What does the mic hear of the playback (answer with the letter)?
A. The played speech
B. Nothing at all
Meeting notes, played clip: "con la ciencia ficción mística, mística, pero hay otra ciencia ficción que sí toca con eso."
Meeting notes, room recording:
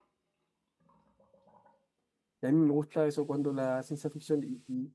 B